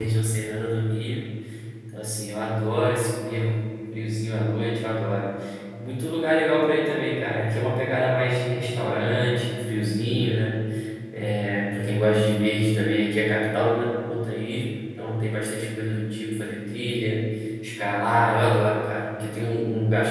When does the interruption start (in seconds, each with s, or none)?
none